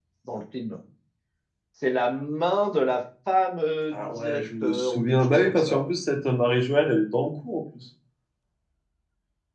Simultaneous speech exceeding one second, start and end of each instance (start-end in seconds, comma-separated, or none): 3.9-5.9